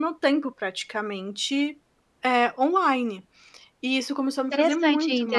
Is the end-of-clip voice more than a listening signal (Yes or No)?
Yes